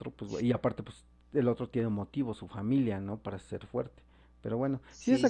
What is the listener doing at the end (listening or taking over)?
listening